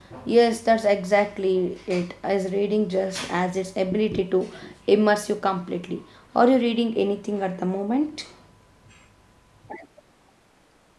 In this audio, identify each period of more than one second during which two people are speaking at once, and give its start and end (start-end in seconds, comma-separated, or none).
none